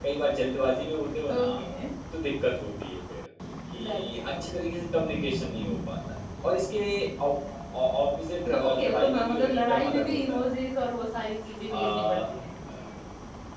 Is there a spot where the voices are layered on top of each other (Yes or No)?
Yes